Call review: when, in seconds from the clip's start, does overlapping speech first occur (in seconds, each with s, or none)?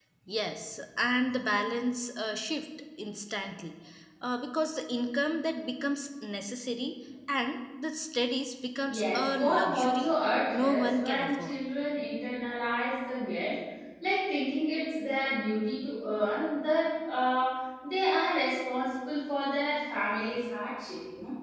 8.8 s